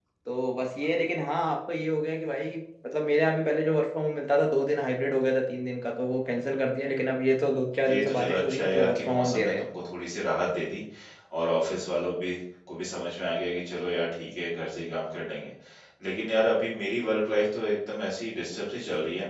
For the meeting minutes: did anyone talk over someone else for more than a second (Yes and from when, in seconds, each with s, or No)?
Yes, from 7.8 s